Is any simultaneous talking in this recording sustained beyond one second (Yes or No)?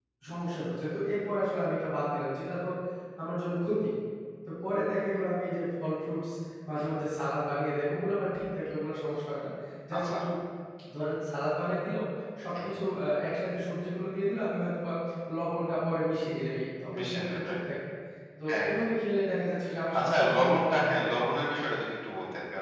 Yes